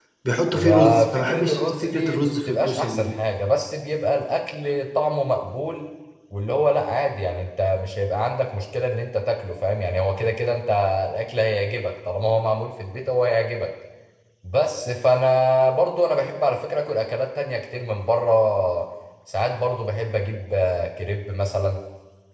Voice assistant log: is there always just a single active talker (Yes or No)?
No